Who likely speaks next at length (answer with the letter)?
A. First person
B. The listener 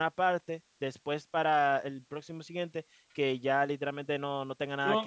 B